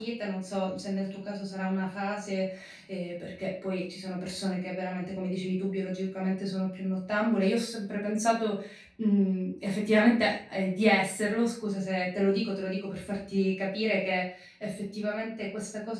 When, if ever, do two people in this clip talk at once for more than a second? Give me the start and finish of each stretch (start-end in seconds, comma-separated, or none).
none